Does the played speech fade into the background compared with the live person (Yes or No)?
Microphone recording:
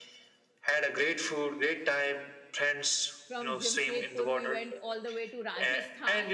No